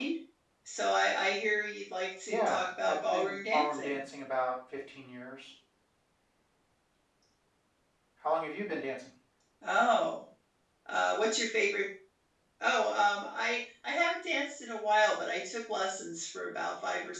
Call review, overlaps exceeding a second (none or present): present